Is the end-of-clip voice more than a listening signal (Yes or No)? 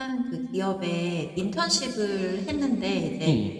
No